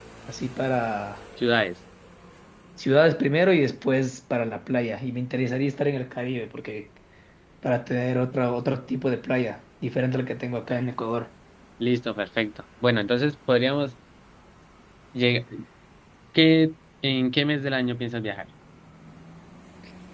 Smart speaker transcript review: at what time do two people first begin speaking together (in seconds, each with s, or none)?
none